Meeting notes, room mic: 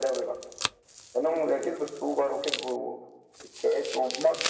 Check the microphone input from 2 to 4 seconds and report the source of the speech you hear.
echo only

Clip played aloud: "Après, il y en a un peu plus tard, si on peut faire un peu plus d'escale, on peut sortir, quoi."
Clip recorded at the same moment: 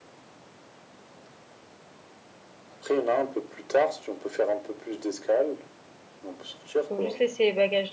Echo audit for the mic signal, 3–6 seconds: echo only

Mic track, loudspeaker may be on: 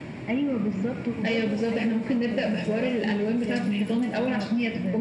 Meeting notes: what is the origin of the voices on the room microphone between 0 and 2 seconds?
echo only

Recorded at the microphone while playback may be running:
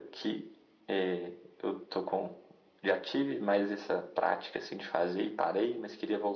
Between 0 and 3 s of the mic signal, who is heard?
echo only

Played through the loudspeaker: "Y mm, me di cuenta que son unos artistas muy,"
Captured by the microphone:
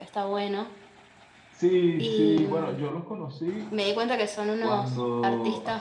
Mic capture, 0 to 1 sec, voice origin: echo only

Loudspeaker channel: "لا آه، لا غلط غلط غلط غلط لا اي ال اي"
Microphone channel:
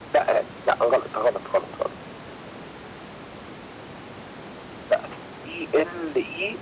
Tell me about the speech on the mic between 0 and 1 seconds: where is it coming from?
echo only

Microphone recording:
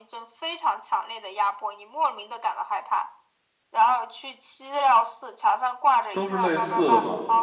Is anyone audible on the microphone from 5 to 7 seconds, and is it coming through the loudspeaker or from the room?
both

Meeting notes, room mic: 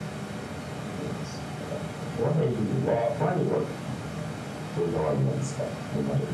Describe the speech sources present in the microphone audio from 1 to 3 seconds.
echo only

